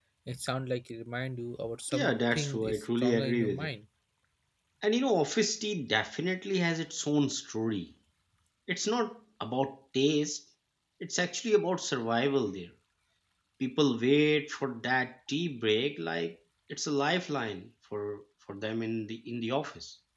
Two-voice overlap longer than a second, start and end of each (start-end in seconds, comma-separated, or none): 1.9-3.7